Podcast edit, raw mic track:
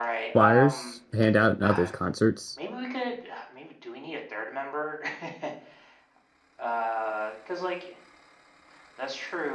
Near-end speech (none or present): present